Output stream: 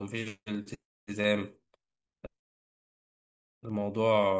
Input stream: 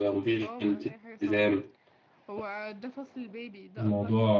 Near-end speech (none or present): present